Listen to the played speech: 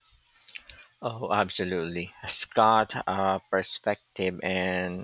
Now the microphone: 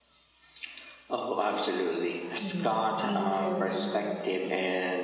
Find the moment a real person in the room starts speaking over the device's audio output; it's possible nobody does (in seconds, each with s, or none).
2.4 s